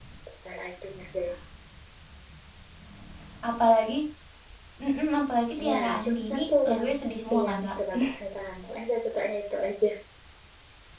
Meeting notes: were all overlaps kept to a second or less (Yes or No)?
No